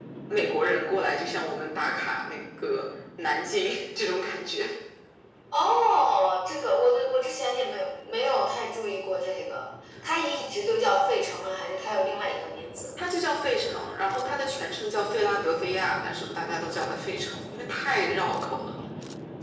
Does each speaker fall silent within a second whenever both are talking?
Yes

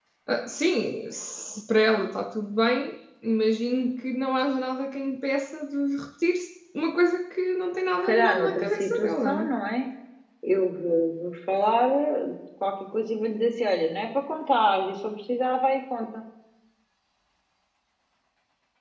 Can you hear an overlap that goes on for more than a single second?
Yes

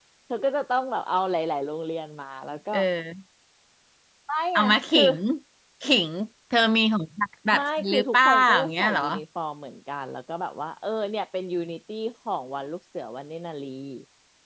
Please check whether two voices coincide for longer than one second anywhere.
Yes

